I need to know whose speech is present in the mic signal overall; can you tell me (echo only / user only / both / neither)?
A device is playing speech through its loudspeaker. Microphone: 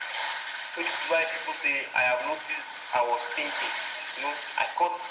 echo only